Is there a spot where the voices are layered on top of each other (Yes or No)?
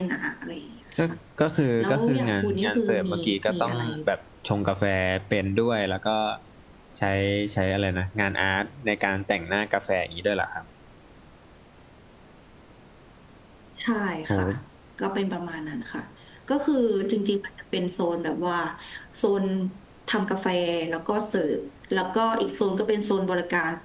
Yes